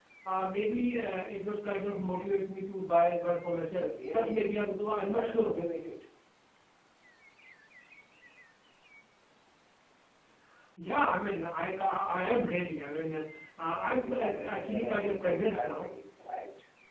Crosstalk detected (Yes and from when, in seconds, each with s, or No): Yes, from 3.7 s